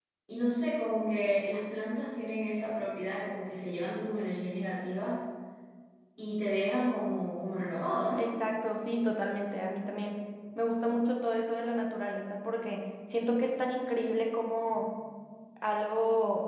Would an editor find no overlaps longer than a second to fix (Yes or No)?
Yes